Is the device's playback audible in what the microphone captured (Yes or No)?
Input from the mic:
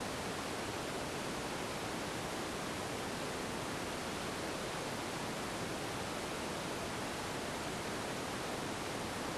No